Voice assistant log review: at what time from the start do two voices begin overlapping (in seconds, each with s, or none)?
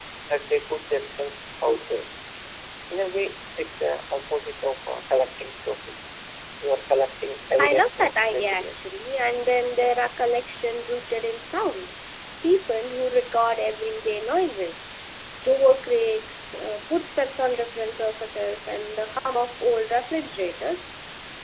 7.6 s